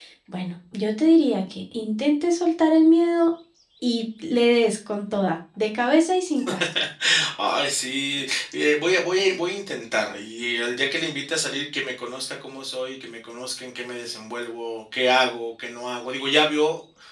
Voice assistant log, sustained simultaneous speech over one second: none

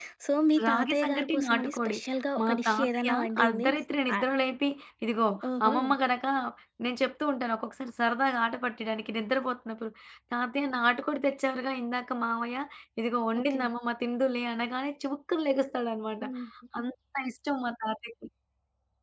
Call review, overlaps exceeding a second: present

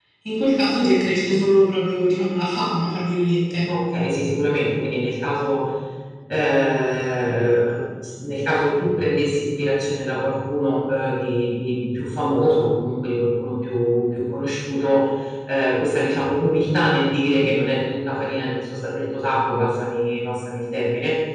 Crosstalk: none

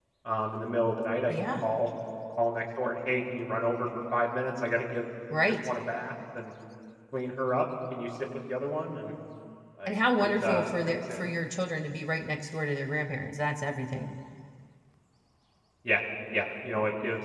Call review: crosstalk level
present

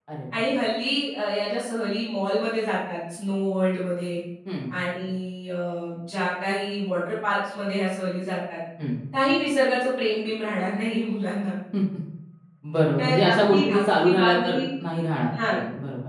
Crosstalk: present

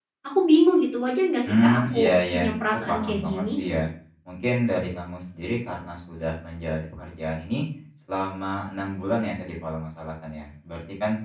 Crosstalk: present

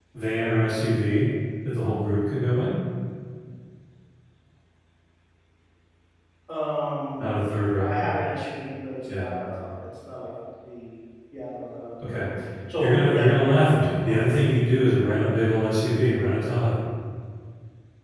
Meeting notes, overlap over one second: present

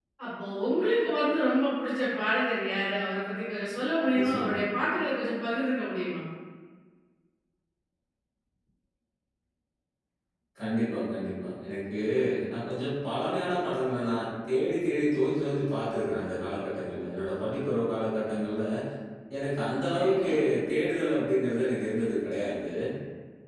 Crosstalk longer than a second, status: none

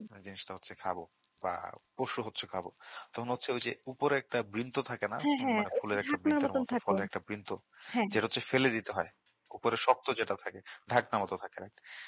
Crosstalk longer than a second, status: present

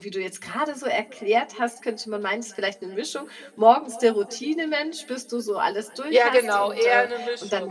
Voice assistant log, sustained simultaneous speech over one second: present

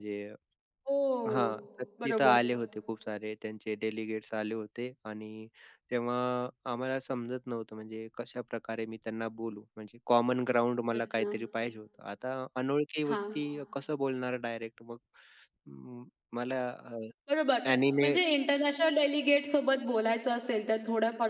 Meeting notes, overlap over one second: none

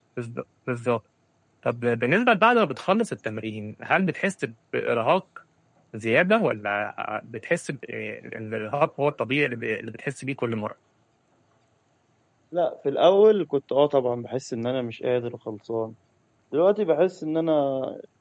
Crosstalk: none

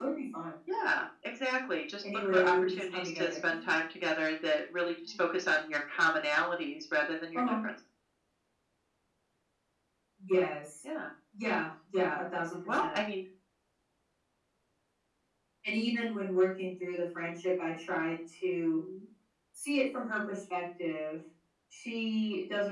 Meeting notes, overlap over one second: present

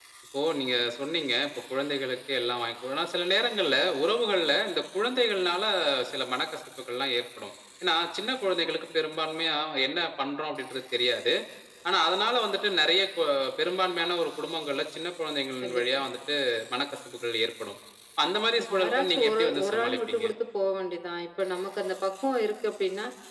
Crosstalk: present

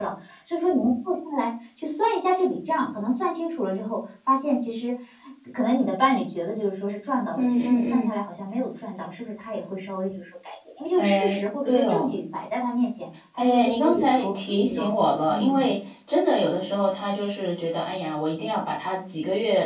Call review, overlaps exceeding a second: present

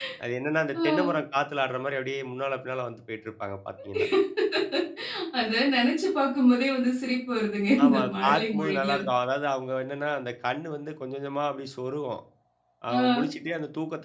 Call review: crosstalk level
present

